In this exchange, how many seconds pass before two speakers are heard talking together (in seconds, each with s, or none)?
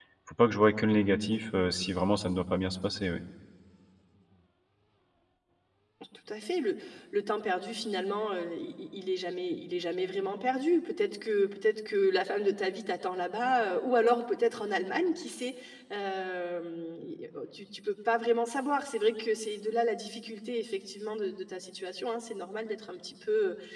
none